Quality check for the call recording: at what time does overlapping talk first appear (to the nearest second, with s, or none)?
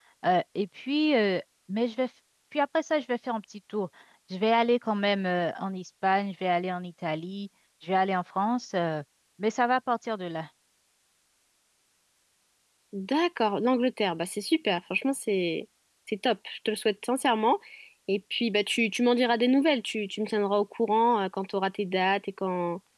none